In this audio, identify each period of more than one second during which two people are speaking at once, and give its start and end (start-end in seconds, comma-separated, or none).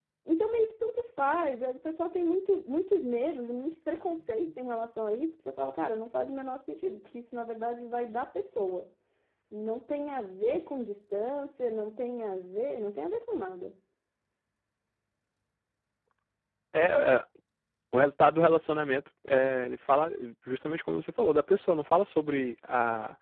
none